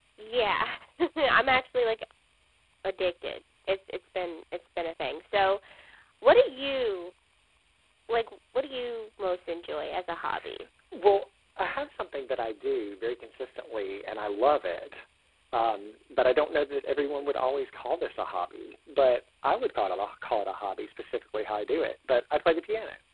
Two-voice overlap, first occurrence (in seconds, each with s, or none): none